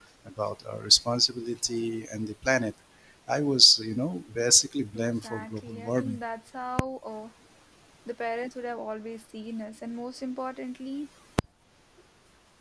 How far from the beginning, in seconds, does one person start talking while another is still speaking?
5.0 s

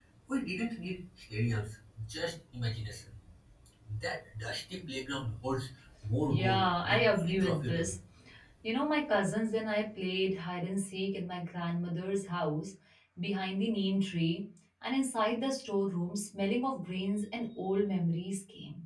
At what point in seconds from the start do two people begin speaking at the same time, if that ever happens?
6.3 s

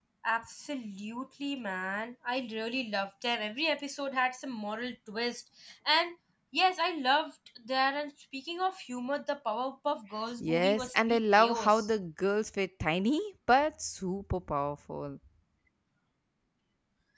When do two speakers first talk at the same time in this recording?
10.4 s

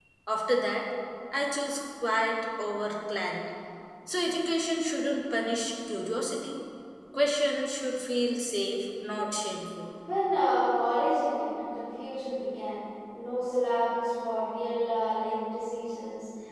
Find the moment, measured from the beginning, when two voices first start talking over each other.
none

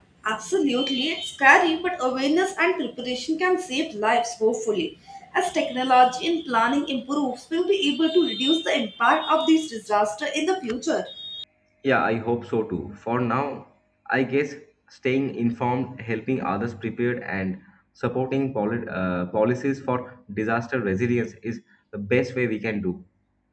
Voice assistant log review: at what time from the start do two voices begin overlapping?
none

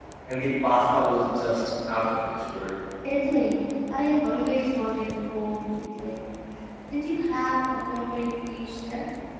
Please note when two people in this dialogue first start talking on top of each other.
none

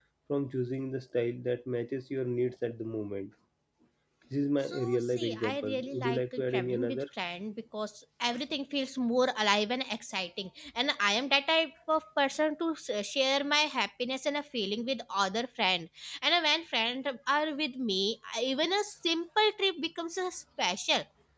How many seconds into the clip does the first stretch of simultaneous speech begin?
4.7 s

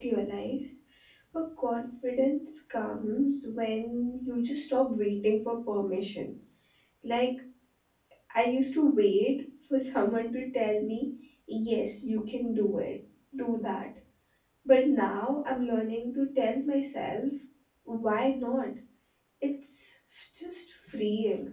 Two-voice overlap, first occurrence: none

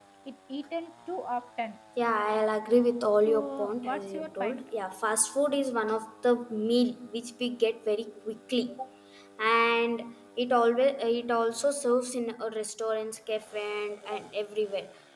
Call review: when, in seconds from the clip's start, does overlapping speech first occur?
3.2 s

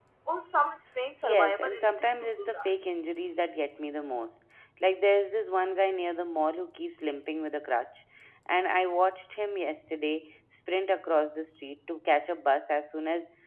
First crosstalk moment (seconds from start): 1.2 s

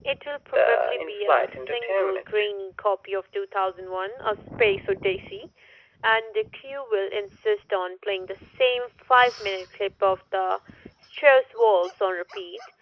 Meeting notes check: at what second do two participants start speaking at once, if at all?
0.5 s

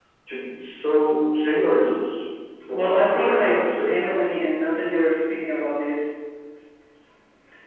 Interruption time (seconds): 2.7 s

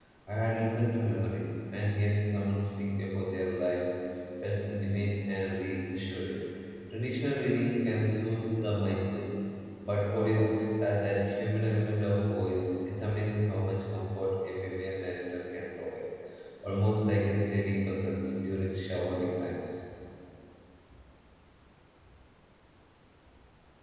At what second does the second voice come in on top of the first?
none

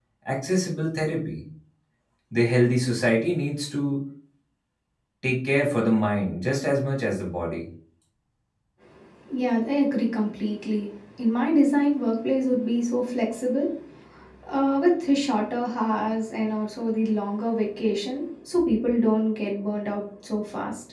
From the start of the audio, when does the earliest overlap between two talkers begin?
none

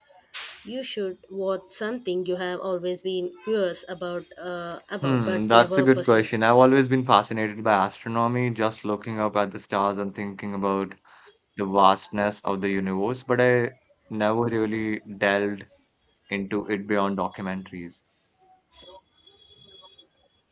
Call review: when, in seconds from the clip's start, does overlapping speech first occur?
5.0 s

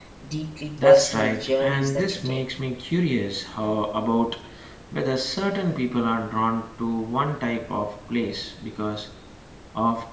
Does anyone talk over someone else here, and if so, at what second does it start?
0.8 s

